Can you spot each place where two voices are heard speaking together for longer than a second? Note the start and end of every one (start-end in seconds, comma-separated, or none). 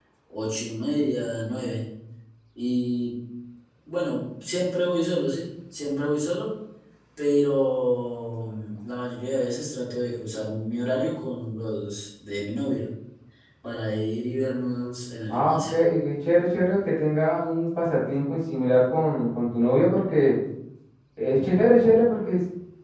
none